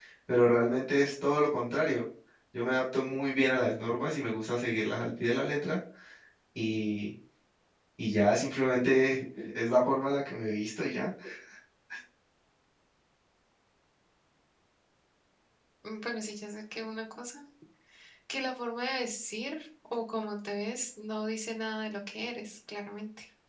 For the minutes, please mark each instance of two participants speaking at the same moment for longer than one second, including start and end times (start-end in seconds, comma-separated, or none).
none